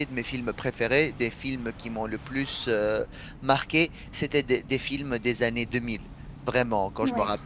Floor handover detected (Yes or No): No